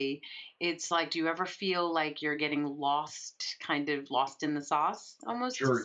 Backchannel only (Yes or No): No